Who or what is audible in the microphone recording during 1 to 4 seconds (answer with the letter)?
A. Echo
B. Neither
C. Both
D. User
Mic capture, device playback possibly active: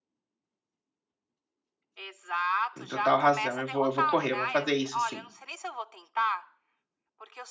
C